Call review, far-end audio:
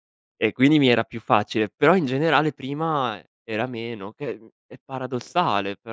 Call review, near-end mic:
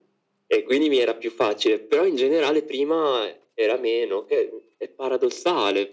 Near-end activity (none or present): none